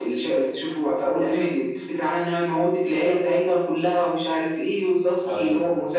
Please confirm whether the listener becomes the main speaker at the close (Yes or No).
No